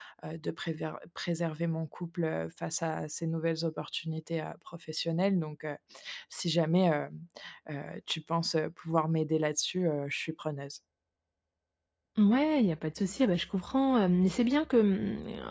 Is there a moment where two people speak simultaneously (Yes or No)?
No